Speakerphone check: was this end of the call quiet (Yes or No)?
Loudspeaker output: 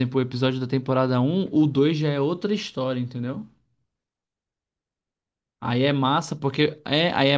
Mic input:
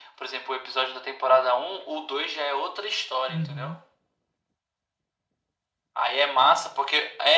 No